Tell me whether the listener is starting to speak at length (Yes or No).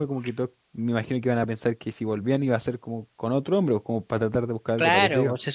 Yes